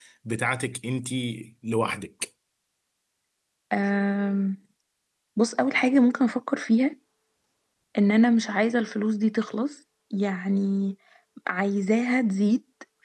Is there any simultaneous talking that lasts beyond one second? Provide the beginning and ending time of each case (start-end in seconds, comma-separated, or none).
none